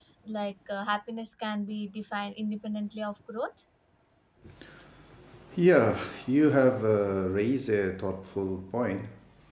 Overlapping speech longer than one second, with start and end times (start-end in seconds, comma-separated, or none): none